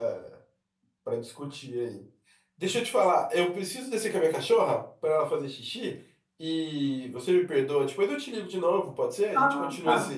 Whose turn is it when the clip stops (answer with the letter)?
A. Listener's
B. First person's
A